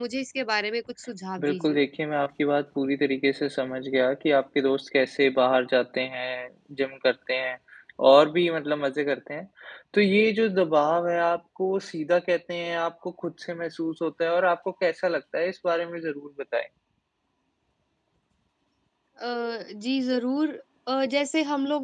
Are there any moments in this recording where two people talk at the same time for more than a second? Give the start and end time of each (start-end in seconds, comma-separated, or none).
none